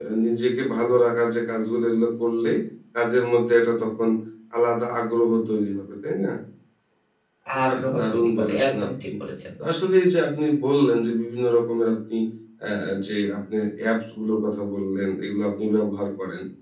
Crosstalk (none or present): present